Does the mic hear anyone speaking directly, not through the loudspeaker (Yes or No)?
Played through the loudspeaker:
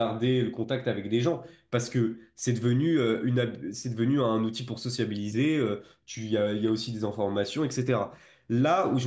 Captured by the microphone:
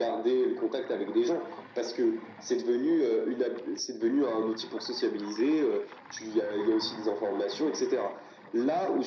No